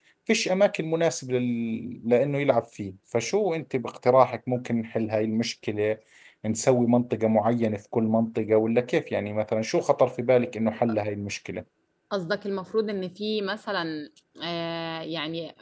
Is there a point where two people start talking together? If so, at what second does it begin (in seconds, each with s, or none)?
none